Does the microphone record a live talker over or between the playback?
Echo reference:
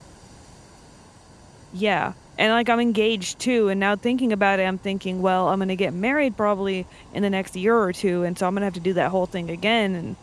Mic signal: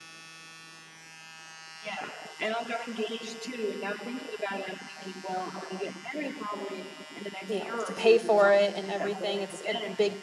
Yes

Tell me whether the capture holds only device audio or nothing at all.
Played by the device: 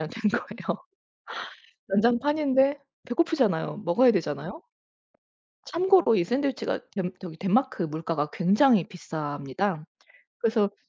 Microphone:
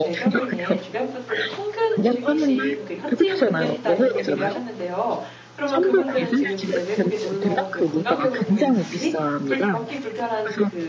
No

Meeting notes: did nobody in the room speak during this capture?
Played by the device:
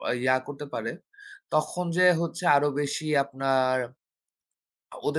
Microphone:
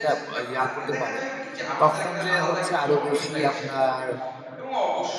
No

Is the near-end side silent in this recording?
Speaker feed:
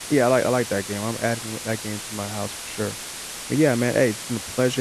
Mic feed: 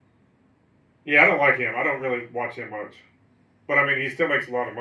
No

